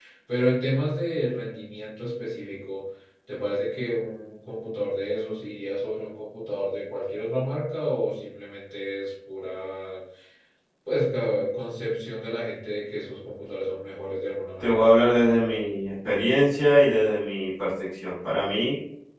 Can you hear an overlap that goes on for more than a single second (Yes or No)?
No